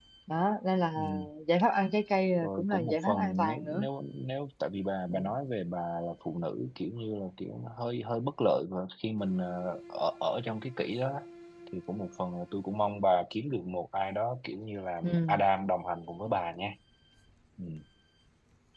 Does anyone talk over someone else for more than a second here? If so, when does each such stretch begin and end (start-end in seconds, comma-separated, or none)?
2.4-3.9